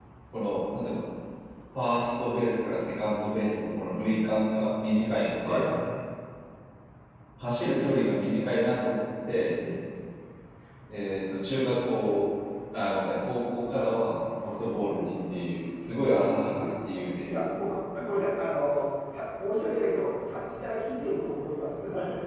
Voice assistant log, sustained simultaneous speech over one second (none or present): none